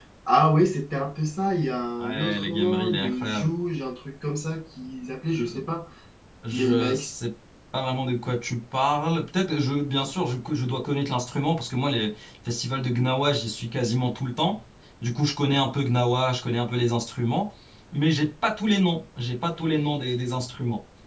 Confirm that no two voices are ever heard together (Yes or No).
No